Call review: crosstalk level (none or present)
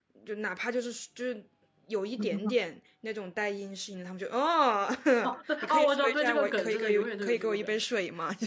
present